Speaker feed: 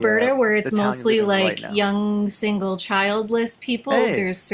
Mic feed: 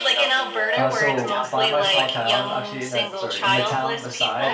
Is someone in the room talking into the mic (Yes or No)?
Yes